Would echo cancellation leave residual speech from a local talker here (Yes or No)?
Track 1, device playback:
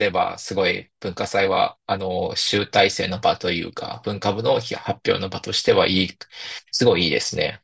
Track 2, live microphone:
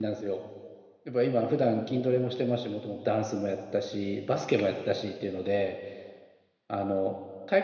Yes